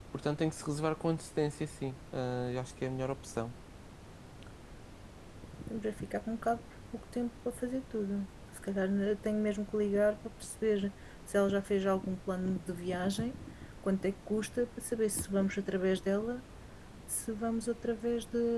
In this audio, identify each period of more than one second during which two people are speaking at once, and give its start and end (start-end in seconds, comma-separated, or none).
none